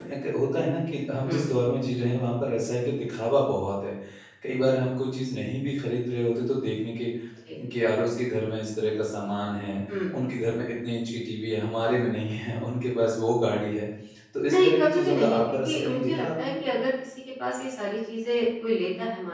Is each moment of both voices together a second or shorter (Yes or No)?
No